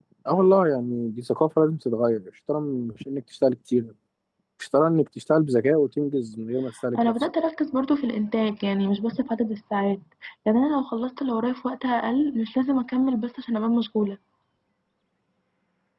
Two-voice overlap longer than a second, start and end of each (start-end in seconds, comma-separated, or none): none